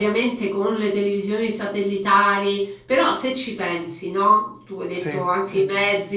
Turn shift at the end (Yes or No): No